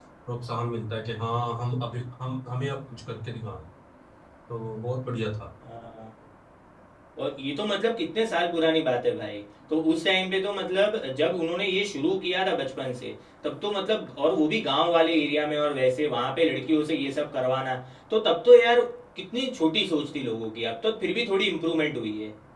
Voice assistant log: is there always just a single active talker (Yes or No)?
Yes